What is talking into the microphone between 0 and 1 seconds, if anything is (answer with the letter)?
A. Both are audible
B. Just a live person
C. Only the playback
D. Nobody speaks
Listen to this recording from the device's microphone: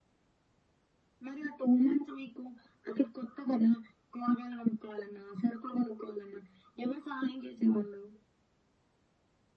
D